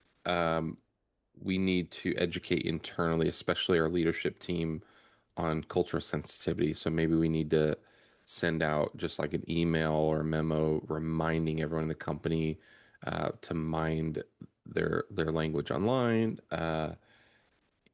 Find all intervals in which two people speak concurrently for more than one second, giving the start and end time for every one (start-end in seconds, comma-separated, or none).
none